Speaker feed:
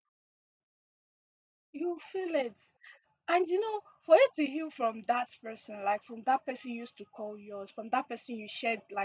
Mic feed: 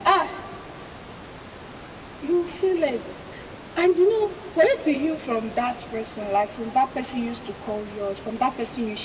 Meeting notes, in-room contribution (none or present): none